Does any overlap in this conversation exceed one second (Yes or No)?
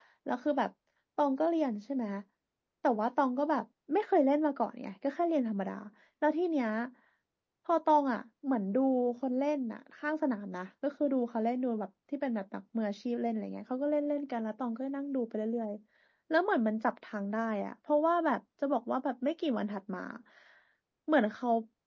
No